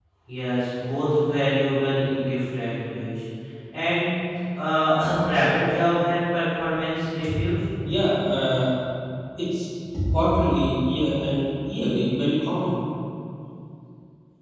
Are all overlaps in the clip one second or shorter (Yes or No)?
Yes